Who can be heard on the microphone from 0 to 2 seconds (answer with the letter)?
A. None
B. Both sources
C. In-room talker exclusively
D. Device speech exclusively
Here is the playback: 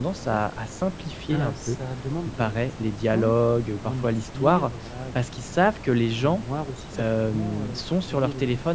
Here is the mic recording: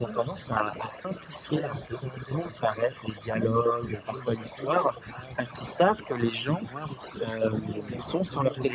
D